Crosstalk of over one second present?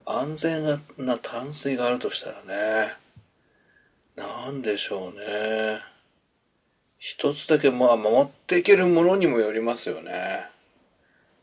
No

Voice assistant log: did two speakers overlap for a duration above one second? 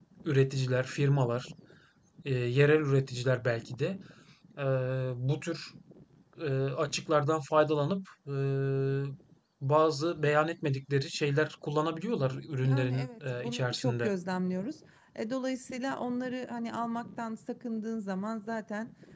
Yes, from 12.6 s

